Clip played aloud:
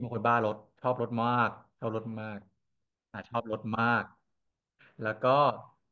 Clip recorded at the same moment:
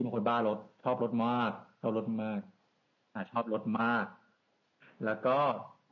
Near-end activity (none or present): none